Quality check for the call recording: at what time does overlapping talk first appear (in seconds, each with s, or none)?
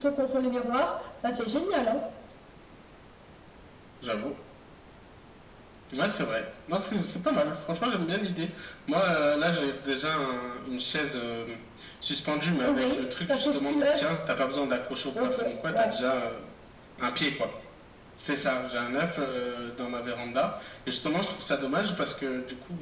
12.6 s